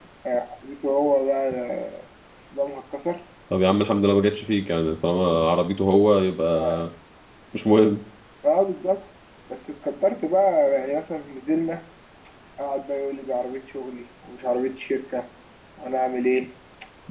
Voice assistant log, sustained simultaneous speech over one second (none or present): none